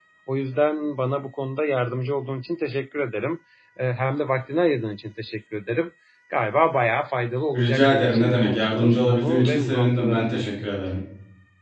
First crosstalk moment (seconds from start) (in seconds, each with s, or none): 7.5 s